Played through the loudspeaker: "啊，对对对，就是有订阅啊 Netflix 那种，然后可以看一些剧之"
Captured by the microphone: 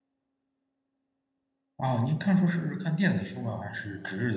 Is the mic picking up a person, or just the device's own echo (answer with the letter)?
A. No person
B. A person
B